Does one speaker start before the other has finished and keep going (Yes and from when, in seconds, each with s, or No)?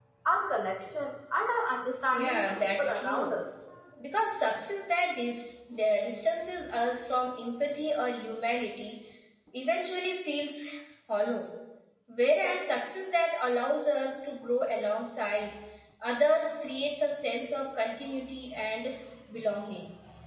Yes, from 2.1 s